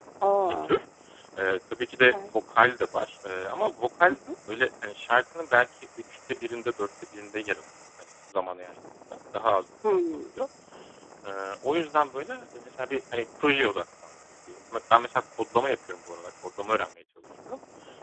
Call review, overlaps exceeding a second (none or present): none